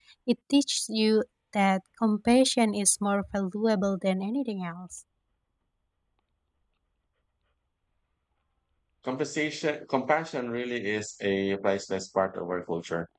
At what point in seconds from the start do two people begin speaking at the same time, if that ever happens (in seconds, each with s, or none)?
none